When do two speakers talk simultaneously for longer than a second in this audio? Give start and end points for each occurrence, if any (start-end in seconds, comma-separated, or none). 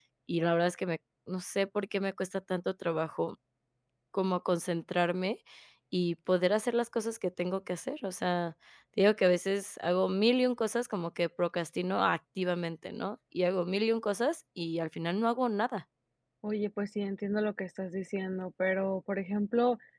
none